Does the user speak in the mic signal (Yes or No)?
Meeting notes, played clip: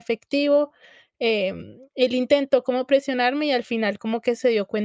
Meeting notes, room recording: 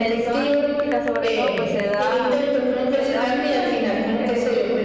Yes